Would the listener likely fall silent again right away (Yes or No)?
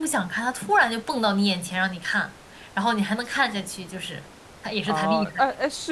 No